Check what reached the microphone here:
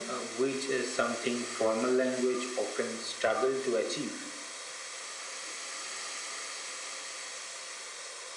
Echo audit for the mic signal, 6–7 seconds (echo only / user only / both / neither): neither